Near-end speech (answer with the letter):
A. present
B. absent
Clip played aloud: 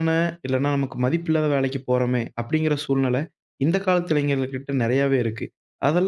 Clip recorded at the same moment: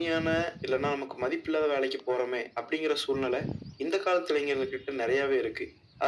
B